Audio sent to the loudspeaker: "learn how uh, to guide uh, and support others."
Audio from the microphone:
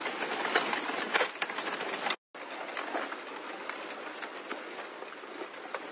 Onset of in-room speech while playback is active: none

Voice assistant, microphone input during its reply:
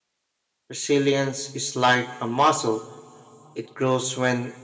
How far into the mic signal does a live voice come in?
1 s

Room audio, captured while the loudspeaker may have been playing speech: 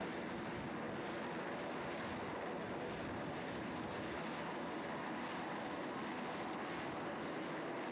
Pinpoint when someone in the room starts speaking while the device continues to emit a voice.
none

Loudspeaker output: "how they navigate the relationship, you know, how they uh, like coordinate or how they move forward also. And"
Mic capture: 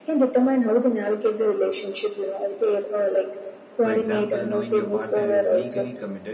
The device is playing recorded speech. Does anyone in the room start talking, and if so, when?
4 s

